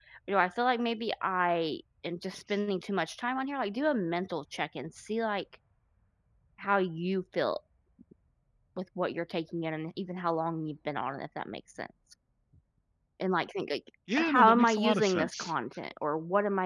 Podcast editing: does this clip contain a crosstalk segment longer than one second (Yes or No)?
Yes